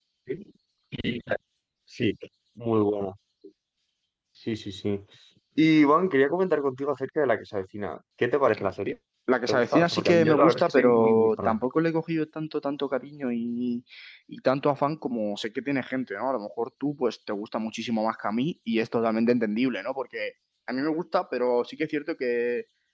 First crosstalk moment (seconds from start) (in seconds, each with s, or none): 9.5 s